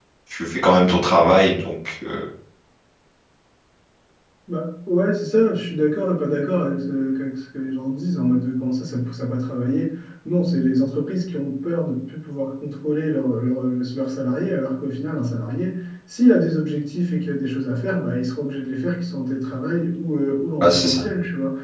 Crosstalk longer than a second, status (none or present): none